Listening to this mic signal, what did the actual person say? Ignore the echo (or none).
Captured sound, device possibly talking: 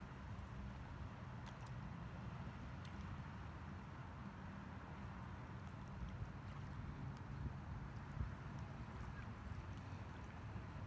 none